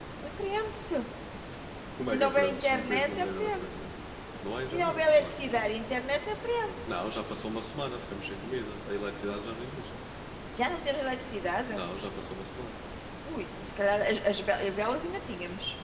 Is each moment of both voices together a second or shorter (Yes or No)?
No